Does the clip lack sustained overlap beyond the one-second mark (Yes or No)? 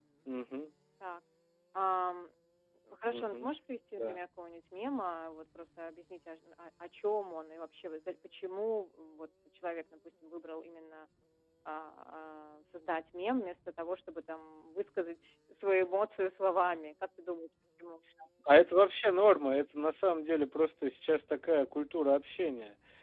Yes